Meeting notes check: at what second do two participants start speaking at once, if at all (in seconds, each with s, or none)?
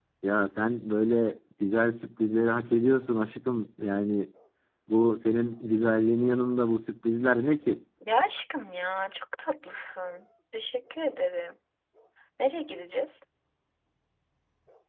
none